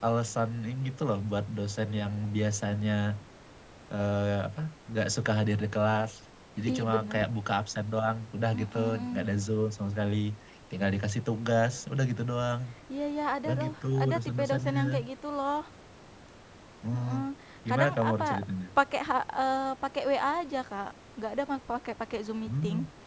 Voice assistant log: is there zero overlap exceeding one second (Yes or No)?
No